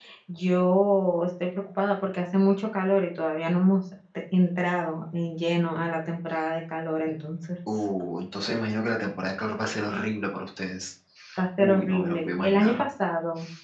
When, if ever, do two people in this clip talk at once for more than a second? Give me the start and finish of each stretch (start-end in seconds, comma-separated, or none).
11.6-12.8